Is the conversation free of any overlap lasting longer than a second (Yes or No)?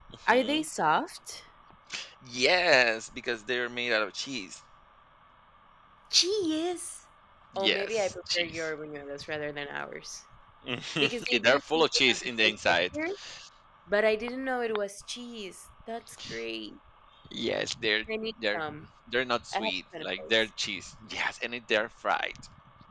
No